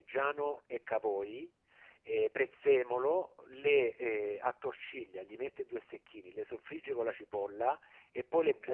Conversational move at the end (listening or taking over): listening